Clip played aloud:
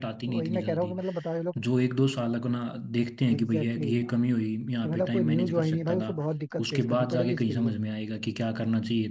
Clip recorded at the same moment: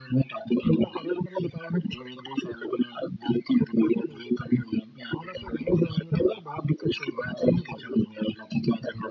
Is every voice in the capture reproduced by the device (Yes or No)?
Yes